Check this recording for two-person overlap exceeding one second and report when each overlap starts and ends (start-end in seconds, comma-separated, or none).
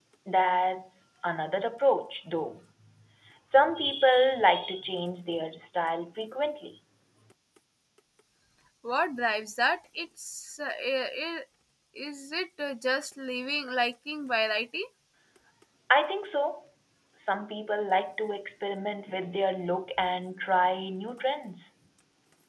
none